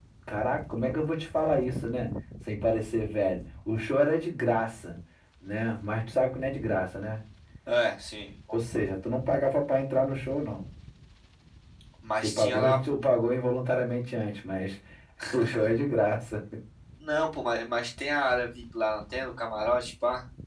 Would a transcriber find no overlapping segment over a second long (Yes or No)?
Yes